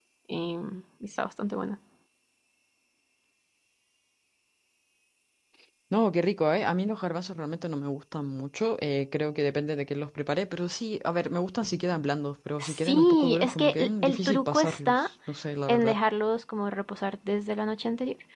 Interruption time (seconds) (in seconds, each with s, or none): 12.6 s